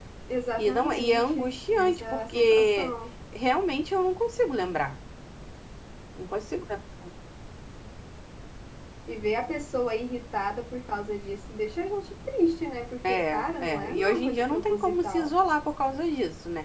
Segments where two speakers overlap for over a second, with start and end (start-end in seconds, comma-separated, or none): 0.6-2.9, 13.1-15.3